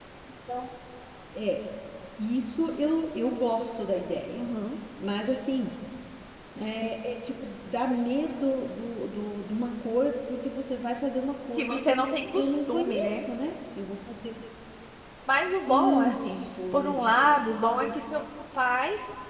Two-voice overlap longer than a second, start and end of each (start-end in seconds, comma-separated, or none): 11.6-13.2, 15.7-17.3